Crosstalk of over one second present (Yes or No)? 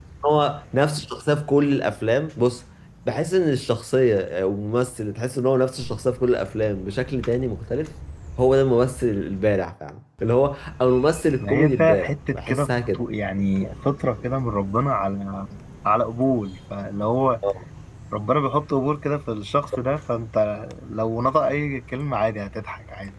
Yes